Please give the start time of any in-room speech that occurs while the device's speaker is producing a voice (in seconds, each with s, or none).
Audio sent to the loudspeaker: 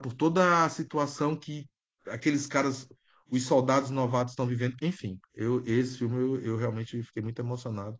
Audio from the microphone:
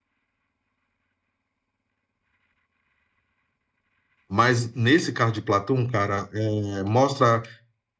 4.3 s